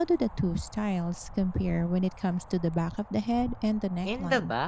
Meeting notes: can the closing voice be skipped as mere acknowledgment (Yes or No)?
No